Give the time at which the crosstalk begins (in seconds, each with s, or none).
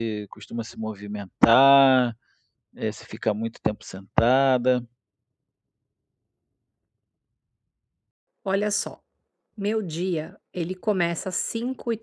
none